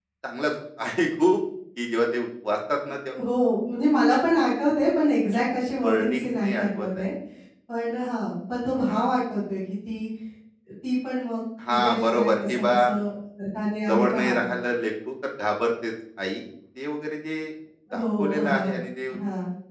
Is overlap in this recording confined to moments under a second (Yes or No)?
No